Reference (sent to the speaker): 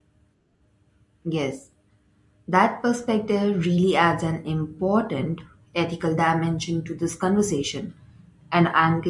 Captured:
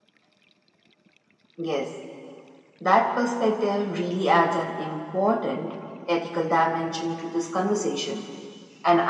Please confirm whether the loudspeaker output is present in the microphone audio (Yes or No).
Yes